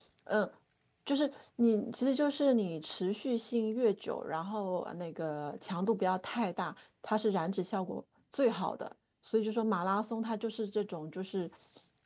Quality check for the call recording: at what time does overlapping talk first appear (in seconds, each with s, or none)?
none